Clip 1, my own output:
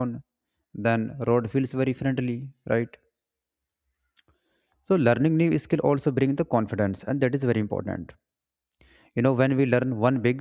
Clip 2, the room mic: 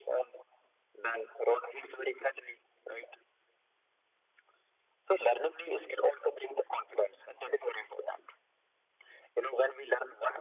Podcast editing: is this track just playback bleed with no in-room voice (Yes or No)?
Yes